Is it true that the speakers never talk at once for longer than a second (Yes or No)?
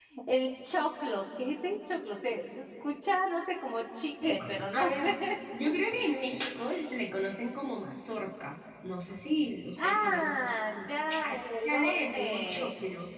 No